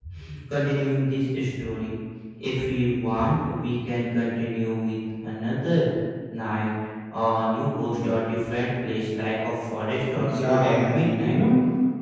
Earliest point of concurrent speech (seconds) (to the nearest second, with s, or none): 10 s